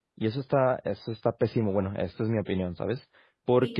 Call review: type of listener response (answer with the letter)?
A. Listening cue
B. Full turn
A